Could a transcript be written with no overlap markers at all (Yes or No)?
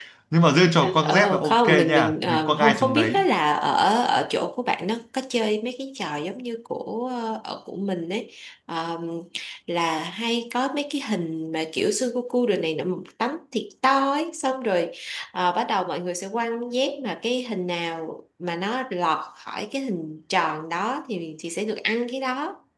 No